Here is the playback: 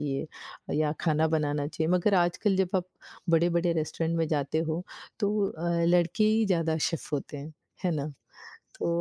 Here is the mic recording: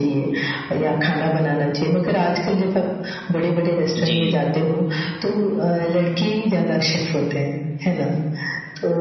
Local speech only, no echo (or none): जी,